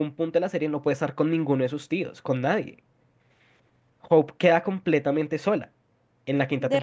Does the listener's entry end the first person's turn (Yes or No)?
Yes